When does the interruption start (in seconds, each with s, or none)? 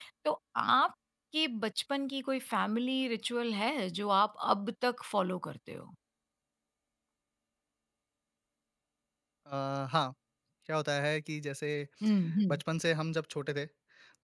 none